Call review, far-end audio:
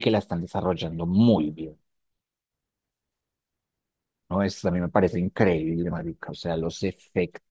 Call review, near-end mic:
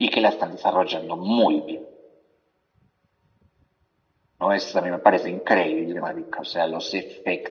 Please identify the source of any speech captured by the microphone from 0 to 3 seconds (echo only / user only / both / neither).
echo only